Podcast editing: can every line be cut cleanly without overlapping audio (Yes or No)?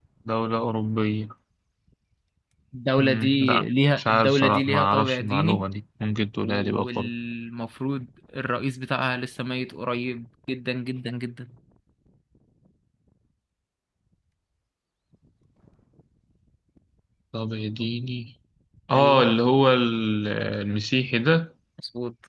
No